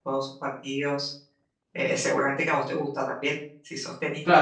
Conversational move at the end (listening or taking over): taking over